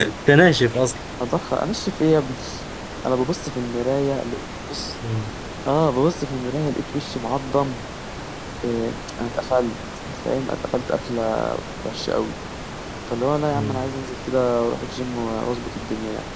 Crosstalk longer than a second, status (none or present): none